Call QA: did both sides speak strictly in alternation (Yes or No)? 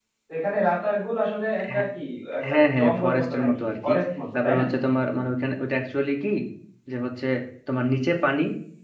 No